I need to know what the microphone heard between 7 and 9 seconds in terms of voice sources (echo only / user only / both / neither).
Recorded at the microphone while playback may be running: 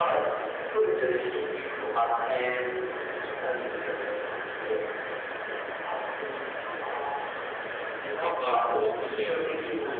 both